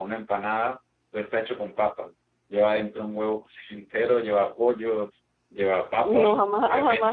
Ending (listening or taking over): taking over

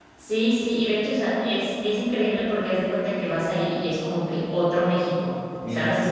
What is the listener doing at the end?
listening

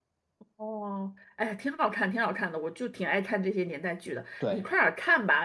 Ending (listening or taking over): listening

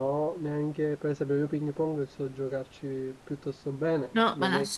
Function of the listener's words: taking over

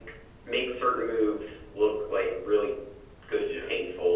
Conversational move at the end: listening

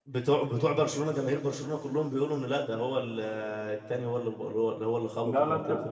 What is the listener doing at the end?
taking over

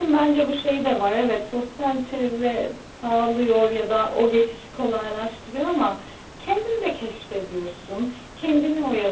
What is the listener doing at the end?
listening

